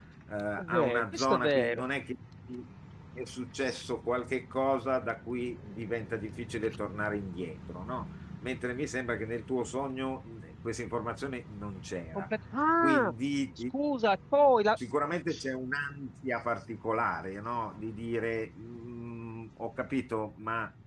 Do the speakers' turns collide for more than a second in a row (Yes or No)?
Yes